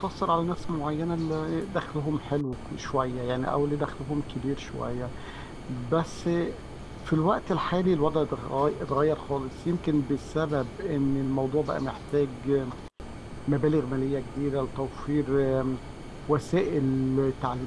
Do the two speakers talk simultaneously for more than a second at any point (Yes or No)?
No